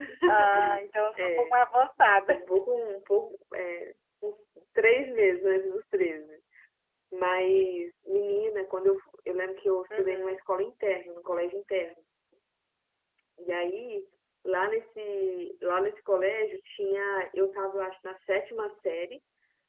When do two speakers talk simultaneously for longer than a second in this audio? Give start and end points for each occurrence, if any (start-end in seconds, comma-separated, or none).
none